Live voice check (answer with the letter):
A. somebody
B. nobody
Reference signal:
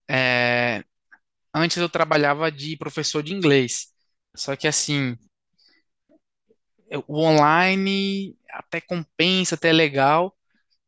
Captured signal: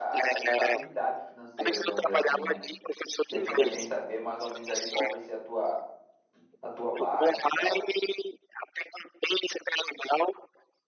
A